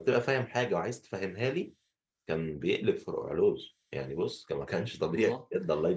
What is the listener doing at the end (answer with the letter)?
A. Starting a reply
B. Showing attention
A